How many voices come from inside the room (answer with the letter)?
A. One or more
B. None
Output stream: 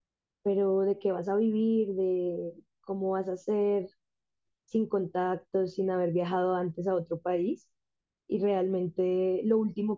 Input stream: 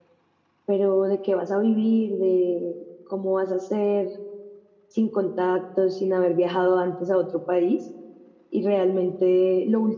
B